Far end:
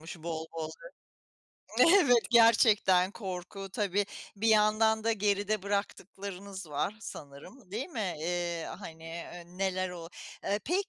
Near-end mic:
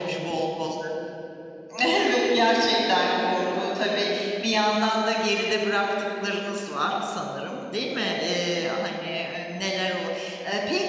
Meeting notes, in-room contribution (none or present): none